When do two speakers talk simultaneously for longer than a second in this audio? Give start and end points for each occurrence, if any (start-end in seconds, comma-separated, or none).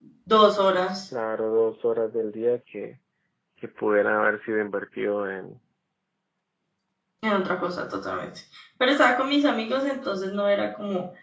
none